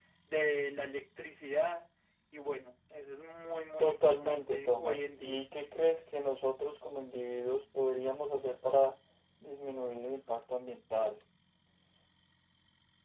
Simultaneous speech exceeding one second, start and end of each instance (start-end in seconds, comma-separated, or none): 3.8-5.4